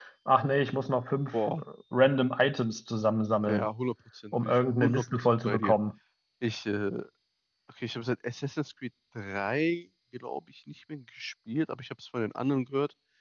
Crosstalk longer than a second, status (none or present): present